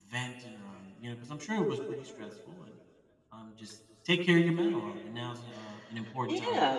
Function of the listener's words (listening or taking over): taking over